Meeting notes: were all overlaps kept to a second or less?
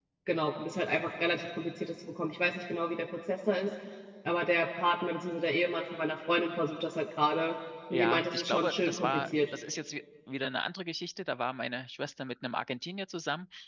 No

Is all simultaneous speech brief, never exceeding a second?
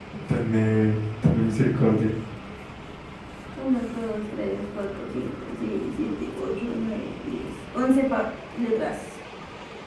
Yes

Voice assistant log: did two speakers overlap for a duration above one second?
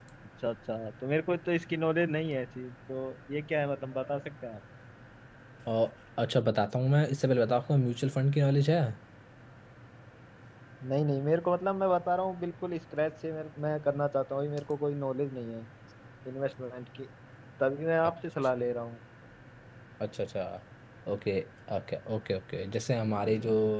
No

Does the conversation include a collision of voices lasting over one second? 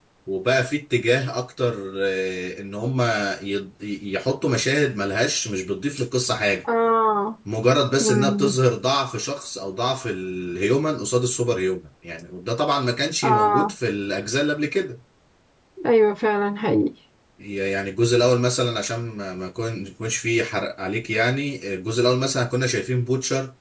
No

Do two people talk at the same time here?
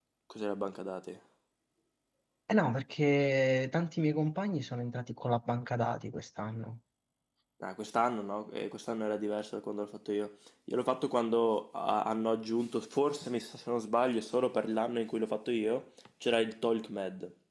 No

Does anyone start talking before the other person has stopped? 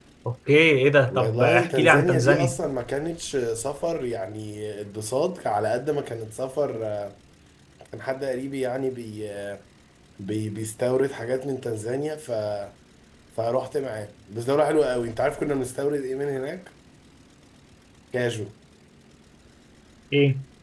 Yes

